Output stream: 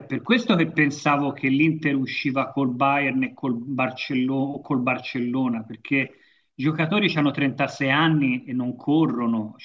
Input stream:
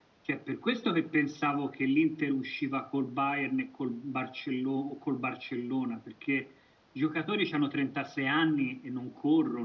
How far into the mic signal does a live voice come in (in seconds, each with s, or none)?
none